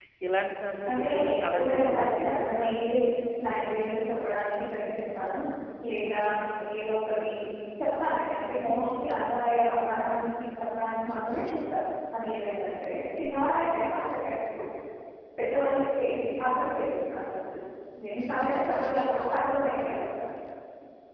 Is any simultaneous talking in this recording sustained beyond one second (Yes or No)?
Yes